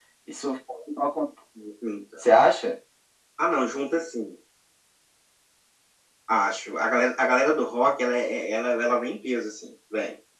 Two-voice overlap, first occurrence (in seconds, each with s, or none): none